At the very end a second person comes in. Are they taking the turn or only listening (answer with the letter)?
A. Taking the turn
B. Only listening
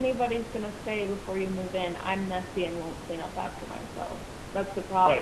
A